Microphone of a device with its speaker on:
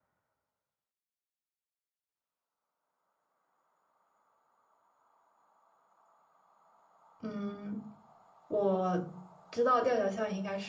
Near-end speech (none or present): present